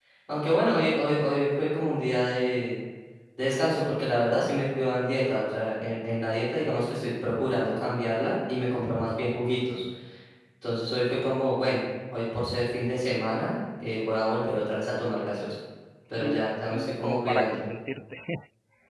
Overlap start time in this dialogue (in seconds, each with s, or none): 16.1 s